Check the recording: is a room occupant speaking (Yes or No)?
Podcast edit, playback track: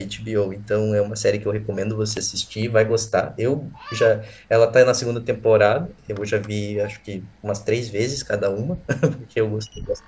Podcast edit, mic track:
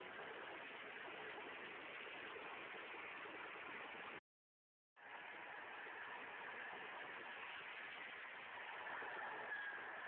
No